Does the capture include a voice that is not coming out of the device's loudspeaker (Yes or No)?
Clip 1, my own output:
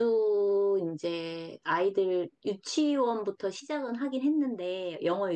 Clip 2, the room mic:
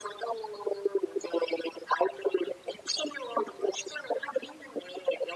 No